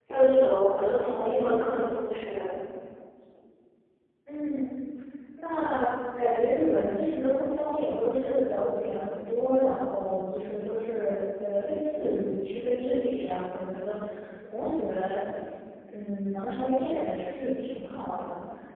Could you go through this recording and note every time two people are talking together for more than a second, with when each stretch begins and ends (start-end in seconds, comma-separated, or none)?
none